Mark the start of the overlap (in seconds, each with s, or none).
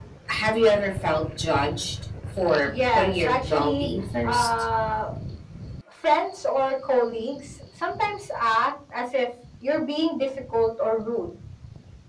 2.7 s